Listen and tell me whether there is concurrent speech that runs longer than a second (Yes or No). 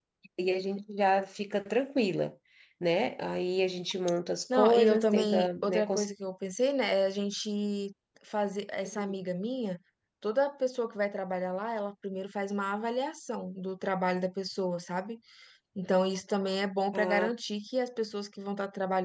Yes